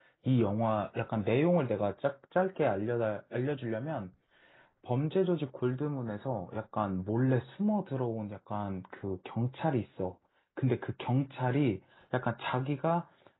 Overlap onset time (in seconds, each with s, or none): none